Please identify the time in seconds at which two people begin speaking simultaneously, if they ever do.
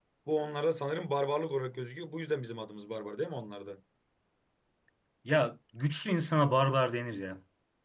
none

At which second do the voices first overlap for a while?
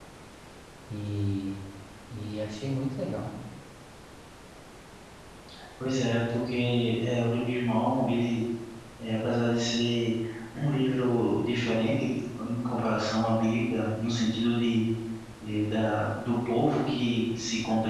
none

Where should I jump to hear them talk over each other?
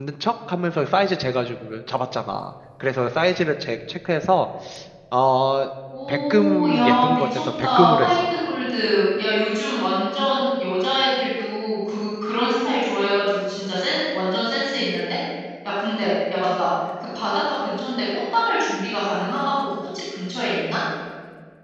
6 s

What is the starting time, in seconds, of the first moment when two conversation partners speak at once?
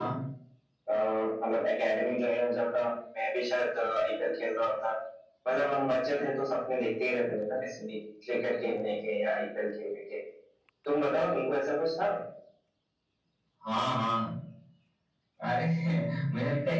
none

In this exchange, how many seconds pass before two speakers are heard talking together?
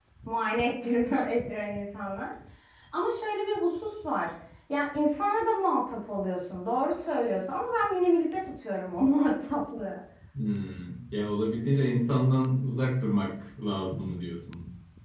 none

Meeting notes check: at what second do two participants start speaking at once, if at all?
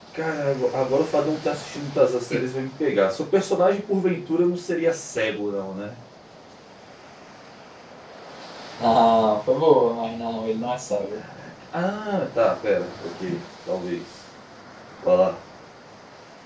none

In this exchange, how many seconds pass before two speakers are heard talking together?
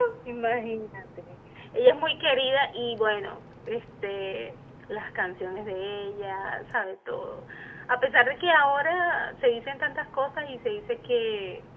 none

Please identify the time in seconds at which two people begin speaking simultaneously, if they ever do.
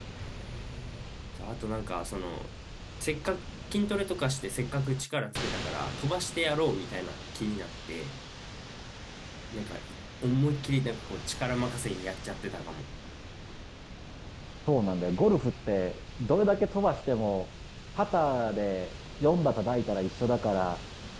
none

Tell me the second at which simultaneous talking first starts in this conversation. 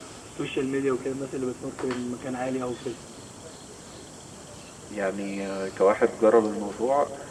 none

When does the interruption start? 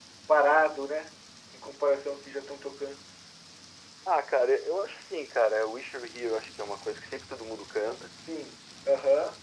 none

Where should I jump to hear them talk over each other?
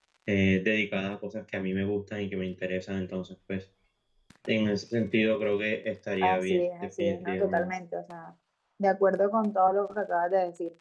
6 s

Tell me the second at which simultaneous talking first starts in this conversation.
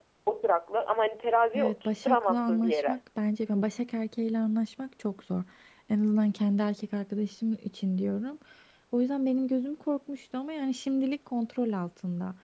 2 s

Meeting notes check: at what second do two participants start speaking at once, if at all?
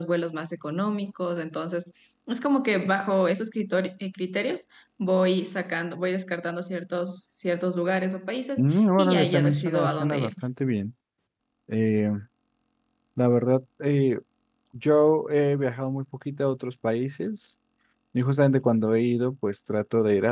9 s

